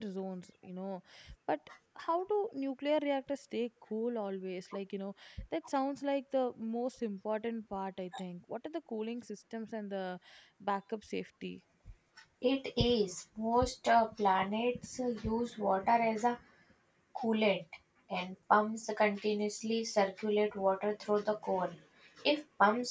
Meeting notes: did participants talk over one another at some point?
No

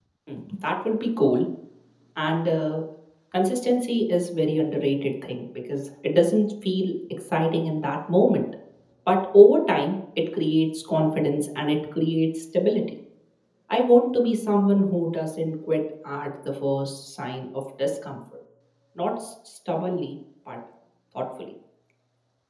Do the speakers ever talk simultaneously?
No

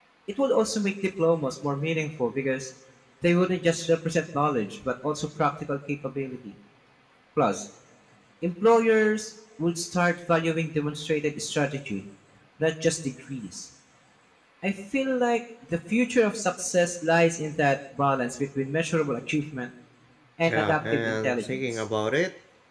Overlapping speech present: Yes, from 20.5 s

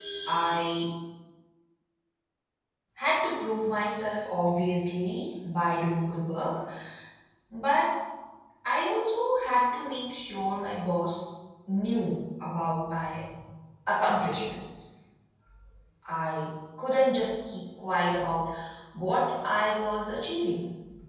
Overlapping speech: No

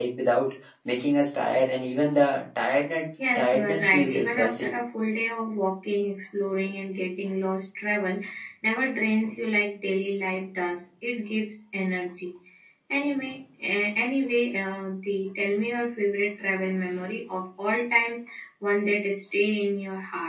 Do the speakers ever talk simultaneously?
Yes, from 3.2 s

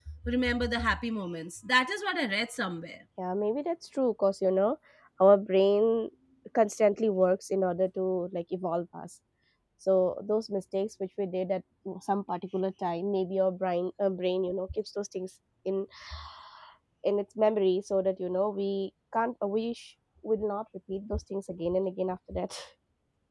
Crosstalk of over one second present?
No

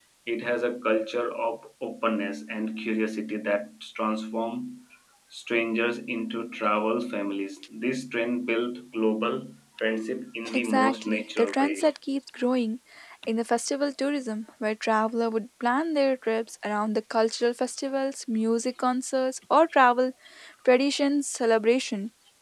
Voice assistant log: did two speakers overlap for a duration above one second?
Yes, from 10.4 s

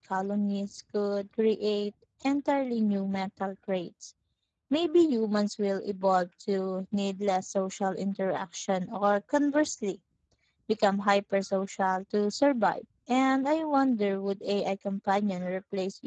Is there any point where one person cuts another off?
No

